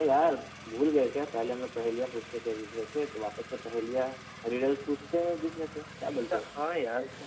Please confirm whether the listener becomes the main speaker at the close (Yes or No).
Yes